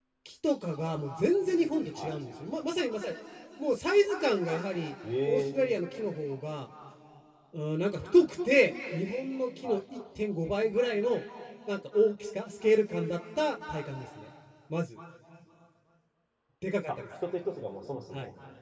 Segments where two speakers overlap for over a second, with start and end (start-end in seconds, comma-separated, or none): none